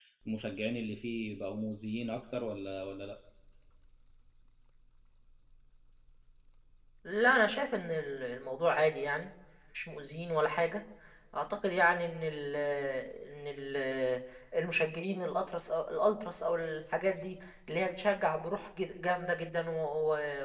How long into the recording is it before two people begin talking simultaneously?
none

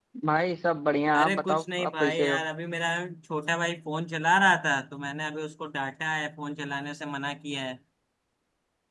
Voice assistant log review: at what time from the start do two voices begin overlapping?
1.2 s

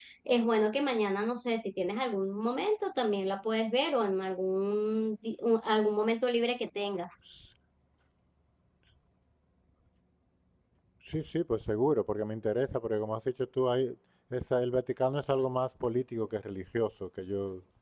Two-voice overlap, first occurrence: none

